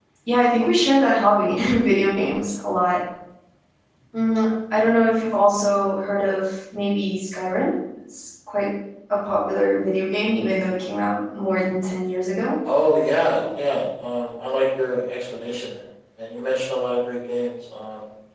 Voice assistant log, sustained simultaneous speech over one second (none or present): none